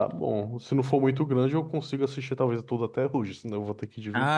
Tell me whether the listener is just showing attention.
No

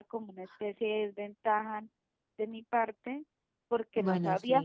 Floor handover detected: No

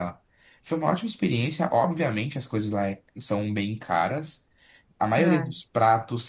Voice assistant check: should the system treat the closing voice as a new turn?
No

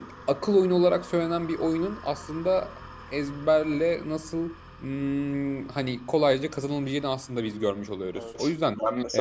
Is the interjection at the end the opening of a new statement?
Yes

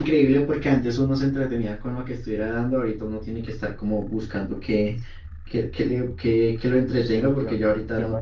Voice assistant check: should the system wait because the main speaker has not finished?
No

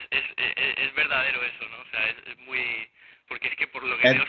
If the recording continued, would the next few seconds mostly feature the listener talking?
No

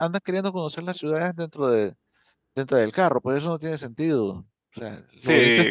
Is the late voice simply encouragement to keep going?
No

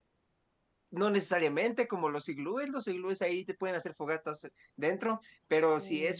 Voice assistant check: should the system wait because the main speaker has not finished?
Yes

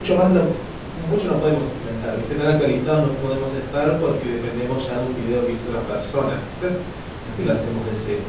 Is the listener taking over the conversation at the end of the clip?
No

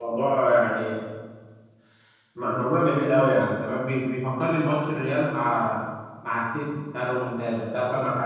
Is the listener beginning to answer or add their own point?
Yes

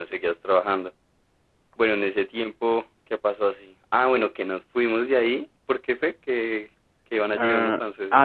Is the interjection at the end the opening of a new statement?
Yes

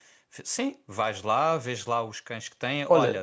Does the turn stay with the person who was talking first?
Yes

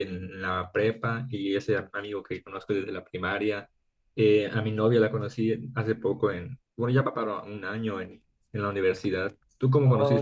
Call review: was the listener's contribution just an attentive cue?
No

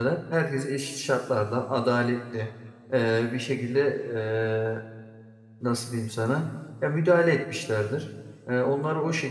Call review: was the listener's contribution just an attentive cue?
Yes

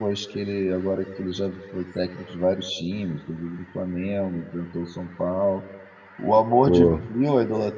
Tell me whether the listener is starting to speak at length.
No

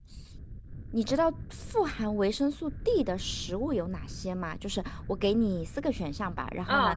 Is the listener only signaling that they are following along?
Yes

